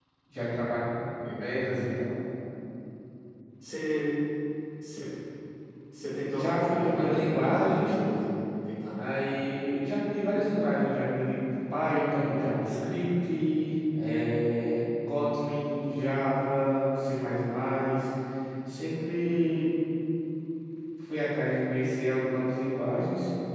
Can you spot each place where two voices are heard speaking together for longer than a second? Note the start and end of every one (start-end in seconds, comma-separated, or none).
6.3-7.9